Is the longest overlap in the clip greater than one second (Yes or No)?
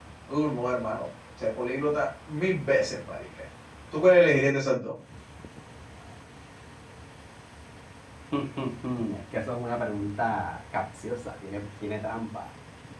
No